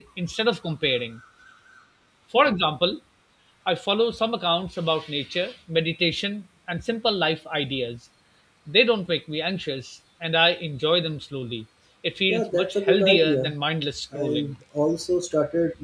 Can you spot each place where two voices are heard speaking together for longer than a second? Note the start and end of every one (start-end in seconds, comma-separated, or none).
12.3-13.5